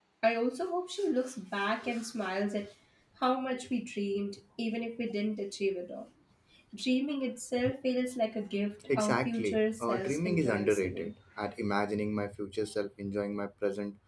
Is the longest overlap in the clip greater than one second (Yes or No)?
Yes